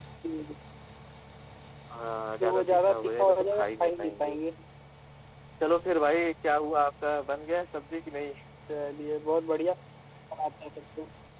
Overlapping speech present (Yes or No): Yes